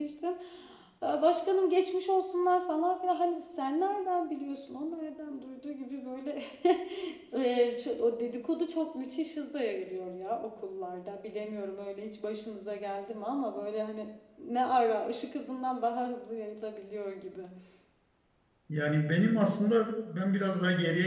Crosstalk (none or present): none